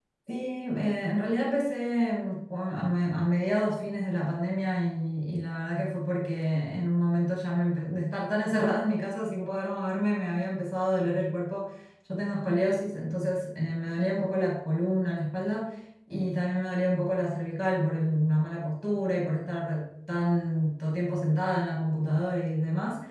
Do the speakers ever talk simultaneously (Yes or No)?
No